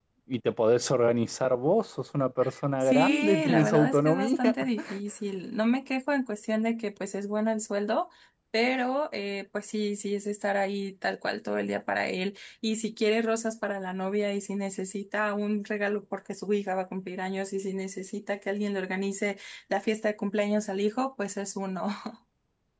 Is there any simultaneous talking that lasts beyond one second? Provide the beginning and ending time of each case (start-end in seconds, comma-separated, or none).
2.8-4.5